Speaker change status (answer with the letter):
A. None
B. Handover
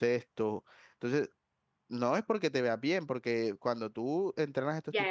B